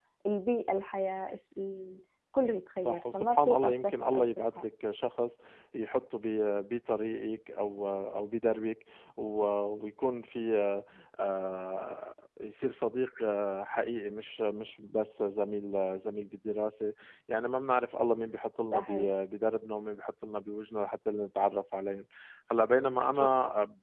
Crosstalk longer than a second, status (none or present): present